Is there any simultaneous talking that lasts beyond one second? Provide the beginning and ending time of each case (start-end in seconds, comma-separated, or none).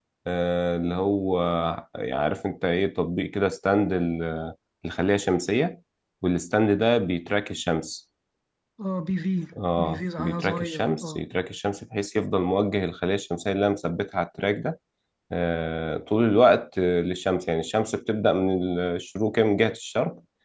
9.7-11.2